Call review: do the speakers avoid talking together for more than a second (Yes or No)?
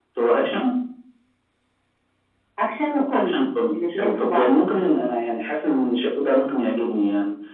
No